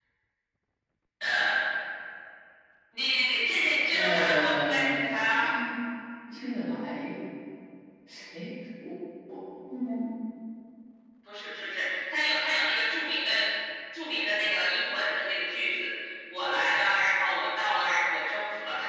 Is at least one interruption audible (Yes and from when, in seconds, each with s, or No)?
Yes, from 3.9 s